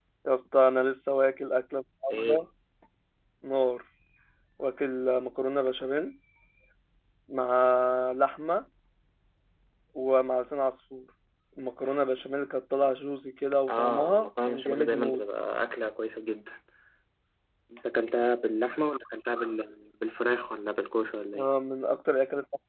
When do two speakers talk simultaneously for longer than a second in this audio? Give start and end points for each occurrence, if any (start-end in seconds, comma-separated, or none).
13.7-15.2